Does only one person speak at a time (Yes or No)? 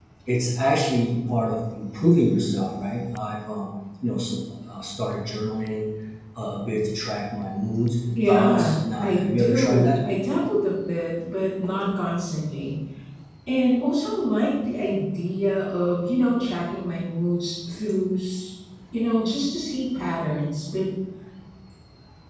No